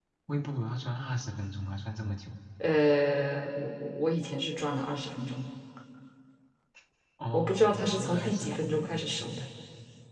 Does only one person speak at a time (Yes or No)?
No